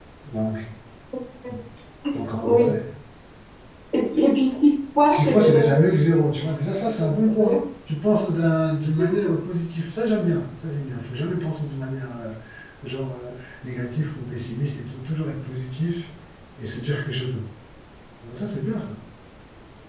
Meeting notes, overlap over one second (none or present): present